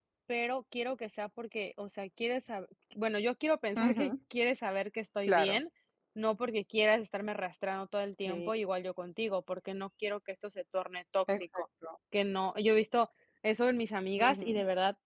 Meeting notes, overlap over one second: none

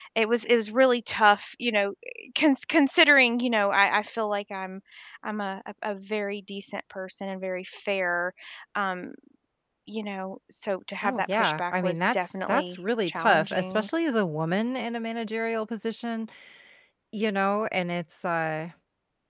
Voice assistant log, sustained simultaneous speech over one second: present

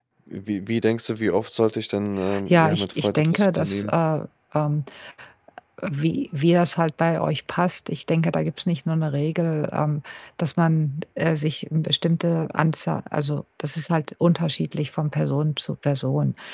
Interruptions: present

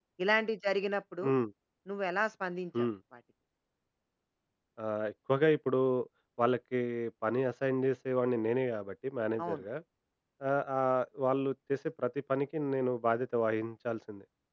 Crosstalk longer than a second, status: none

